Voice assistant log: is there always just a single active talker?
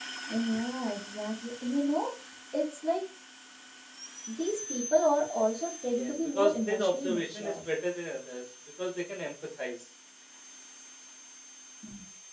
No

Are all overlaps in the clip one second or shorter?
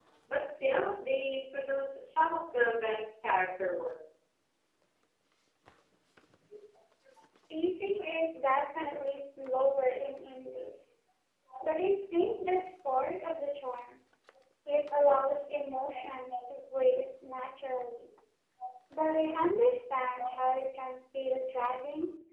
Yes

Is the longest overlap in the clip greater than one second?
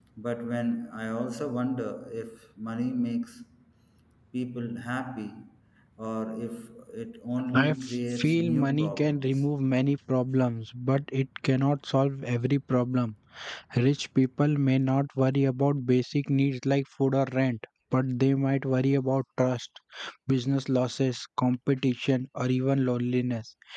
Yes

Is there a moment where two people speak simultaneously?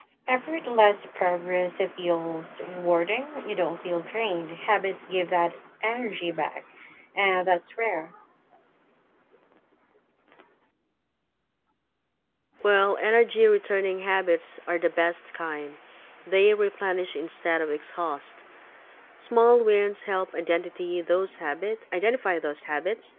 No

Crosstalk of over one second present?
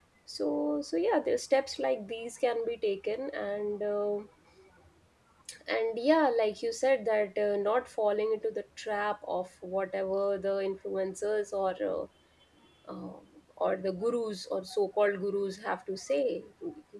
No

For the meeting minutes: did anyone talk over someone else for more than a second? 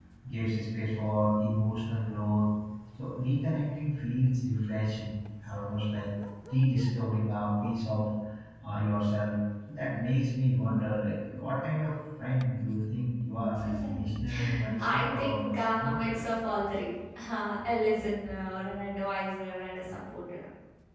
Yes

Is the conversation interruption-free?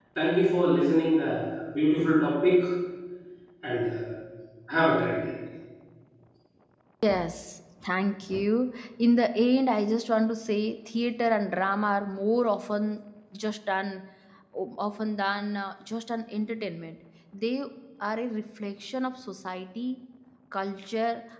Yes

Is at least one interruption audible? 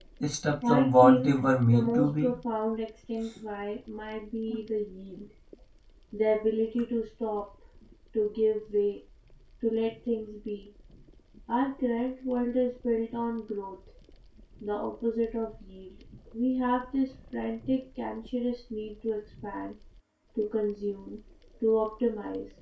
Yes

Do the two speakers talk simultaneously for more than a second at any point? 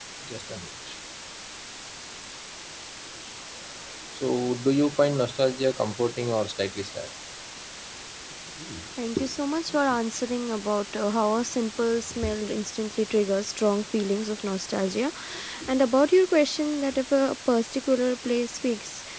No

